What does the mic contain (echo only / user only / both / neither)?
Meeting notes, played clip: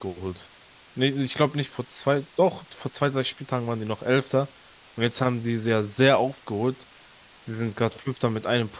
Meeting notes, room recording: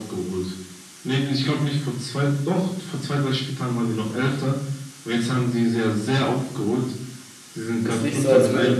both